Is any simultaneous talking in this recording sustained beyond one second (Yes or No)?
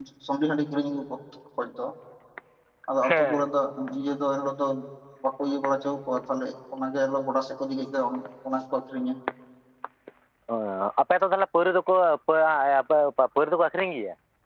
No